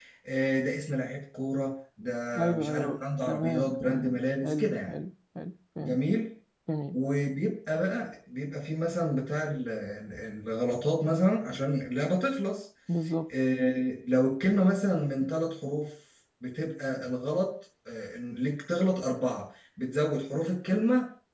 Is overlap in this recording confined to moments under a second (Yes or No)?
No